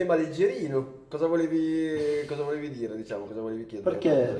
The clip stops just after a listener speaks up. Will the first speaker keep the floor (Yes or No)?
No